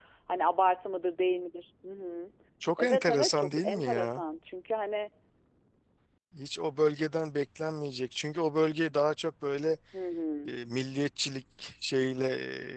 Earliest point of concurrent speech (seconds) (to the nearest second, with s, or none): 3 s